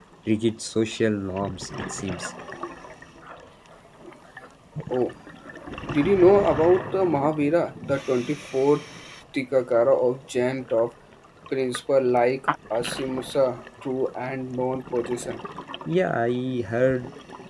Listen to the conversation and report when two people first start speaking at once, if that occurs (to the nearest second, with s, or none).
none